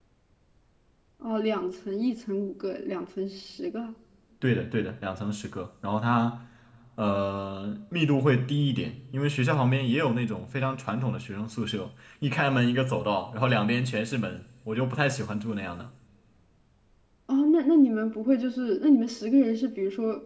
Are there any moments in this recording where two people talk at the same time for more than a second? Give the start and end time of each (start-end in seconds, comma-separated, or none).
none